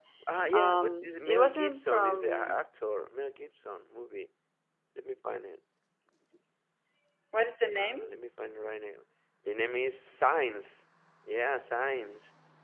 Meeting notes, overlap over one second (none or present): present